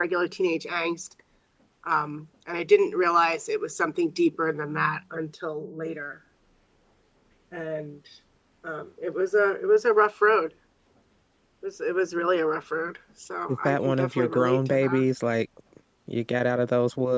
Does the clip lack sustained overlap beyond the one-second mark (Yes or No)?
No